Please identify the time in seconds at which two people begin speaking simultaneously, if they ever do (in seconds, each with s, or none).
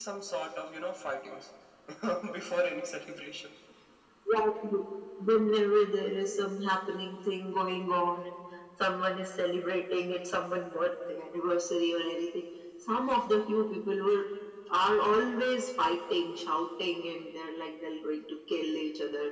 none